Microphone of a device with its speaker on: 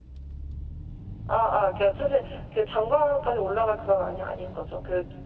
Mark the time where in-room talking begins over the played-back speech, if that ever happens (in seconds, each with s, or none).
none